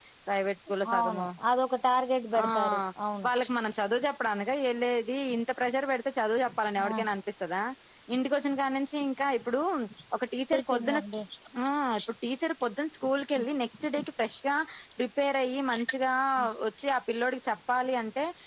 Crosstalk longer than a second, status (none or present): none